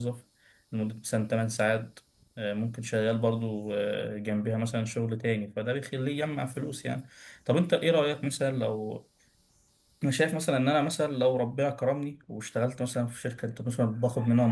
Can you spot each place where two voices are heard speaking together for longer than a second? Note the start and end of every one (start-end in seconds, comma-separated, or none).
none